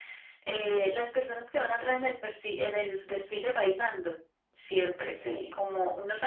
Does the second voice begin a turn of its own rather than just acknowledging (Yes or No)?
No